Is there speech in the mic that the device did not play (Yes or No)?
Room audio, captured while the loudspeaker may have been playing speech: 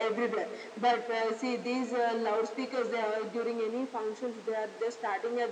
No